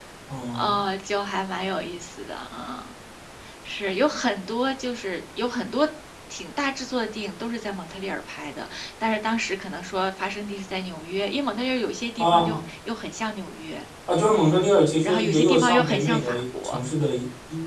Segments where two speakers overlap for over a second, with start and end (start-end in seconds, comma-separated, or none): 15.0-16.8